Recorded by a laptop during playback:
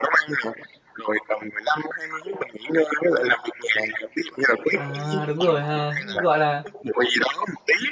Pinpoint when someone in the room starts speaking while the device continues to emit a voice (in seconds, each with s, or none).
4.7 s